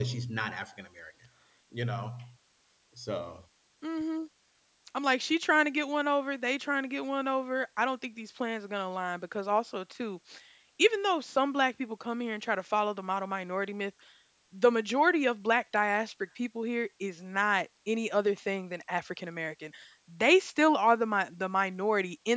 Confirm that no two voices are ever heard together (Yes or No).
Yes